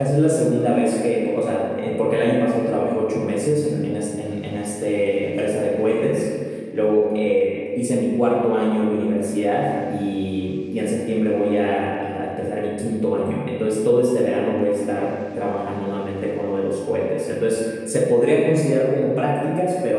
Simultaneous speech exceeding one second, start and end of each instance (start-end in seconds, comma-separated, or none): none